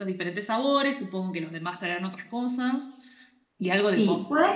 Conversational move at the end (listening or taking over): taking over